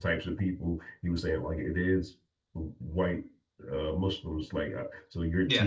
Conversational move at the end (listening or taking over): listening